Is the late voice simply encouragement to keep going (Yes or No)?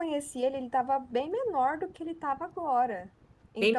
Yes